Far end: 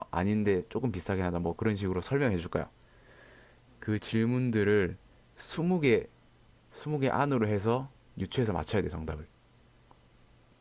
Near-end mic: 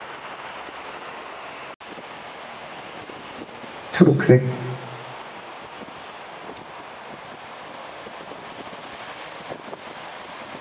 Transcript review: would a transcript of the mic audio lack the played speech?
Yes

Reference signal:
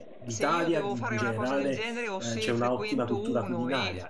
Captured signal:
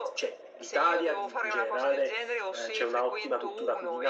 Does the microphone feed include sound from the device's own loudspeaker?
Yes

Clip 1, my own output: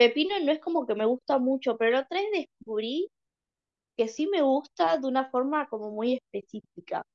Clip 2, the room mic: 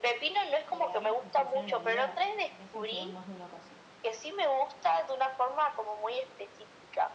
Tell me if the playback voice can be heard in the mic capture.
Yes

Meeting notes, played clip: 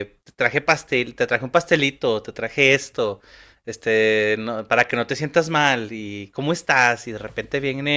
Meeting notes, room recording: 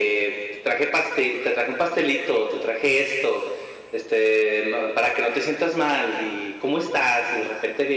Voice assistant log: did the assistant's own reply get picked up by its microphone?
Yes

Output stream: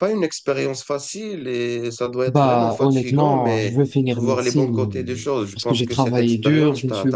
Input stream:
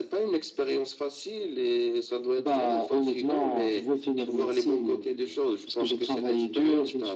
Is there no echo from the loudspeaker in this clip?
No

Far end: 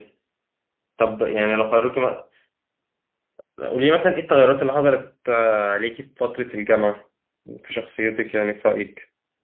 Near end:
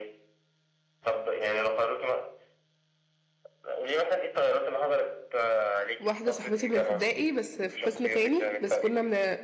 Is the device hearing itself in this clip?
Yes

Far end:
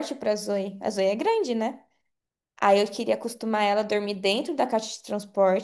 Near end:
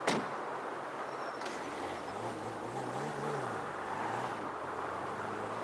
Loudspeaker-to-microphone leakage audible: No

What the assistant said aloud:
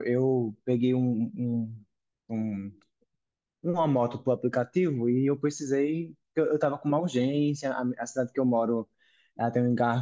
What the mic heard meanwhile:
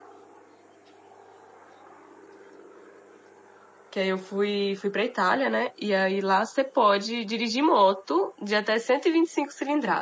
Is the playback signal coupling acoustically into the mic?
No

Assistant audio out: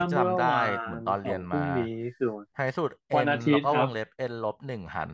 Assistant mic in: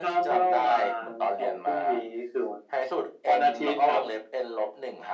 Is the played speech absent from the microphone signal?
No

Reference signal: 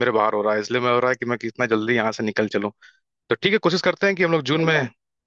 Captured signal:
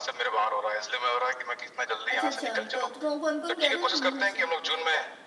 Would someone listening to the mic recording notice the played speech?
Yes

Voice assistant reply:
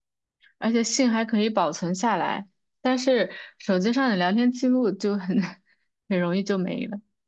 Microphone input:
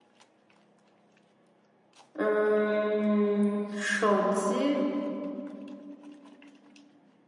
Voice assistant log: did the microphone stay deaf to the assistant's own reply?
Yes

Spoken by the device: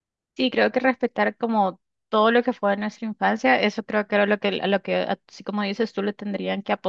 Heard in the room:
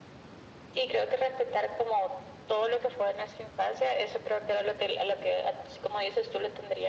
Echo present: Yes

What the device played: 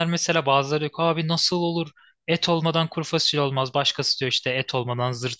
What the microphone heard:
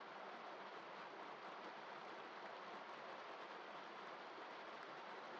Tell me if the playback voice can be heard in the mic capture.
No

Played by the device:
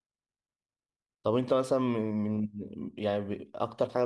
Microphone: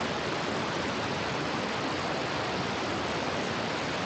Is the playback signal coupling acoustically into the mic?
No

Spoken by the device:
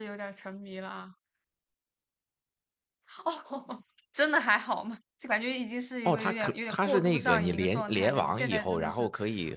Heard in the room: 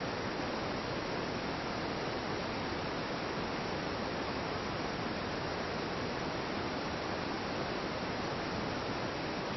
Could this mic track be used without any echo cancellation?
Yes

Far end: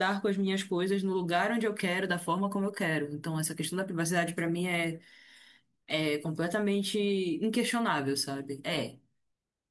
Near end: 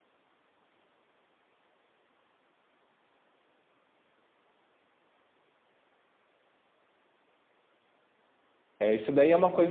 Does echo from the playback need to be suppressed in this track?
No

